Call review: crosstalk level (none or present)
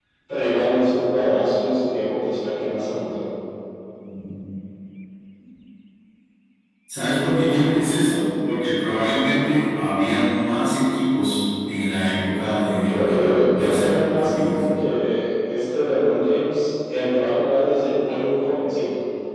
present